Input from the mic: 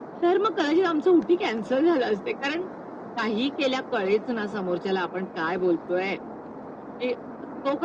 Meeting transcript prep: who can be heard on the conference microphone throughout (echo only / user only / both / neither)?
echo only